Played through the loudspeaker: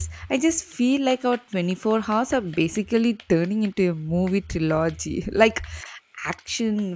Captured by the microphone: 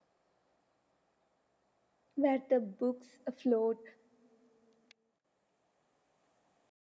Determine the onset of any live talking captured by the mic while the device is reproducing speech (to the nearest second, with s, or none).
2 s